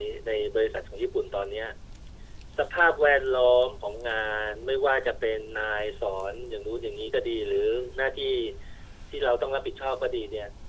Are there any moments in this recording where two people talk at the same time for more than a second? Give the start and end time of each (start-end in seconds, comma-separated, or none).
none